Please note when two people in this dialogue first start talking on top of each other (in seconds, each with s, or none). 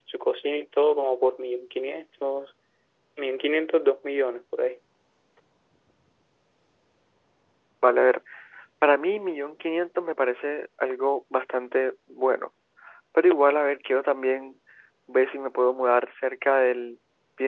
none